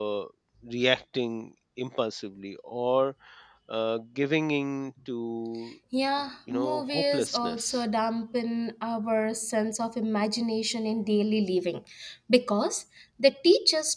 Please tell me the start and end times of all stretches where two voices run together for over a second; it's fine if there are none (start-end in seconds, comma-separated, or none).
6.5-7.8